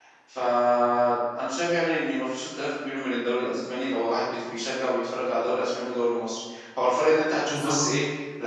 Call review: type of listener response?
listening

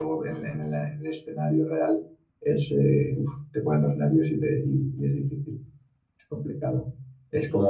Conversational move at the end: listening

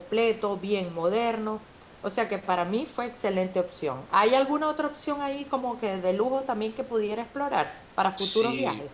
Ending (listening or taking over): taking over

